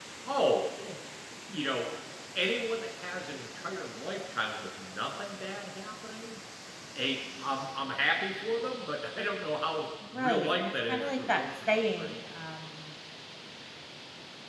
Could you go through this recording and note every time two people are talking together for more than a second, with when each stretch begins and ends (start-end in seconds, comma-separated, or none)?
10.1-12.2